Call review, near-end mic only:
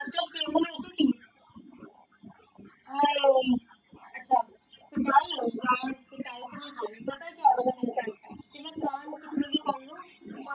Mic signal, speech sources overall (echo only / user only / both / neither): echo only